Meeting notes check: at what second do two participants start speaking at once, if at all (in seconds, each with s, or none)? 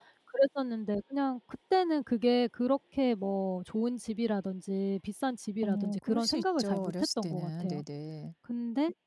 5.6 s